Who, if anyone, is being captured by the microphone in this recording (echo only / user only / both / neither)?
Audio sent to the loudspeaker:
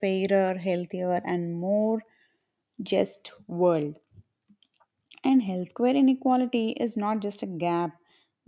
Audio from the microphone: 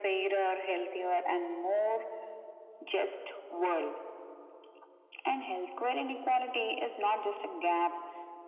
echo only